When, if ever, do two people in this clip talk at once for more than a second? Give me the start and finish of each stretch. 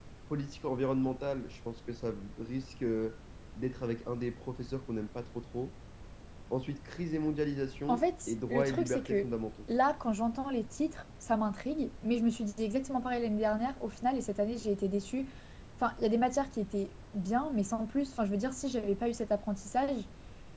7.9-9.3

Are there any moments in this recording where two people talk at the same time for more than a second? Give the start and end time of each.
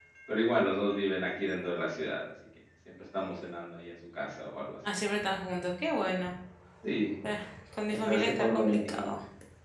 7.9-9.1

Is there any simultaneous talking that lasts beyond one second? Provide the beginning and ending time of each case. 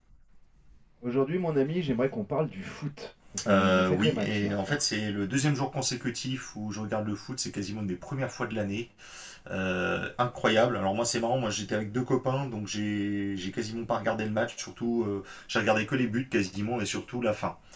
3.5-4.8

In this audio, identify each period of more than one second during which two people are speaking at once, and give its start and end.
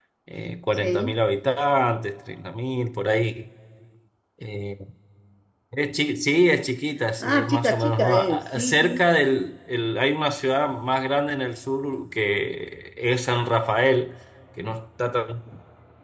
7.2-9.0

